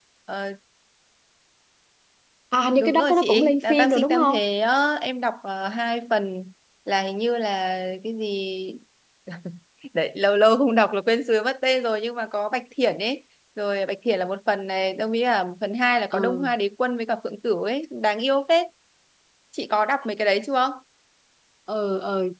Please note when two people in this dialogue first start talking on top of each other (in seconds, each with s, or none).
2.8 s